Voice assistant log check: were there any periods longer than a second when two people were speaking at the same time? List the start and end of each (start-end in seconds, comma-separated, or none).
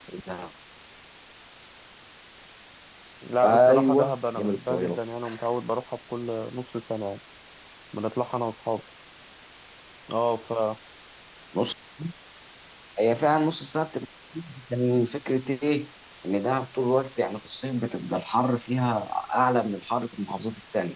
3.4-5.0